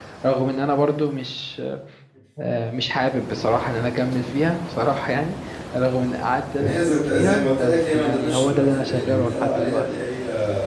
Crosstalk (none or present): present